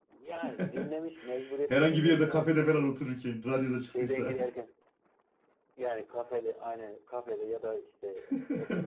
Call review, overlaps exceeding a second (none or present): present